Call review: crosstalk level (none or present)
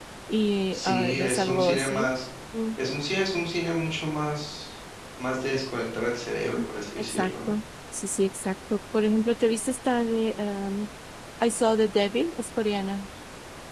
present